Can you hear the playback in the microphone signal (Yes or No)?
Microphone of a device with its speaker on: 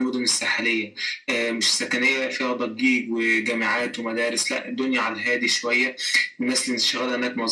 Yes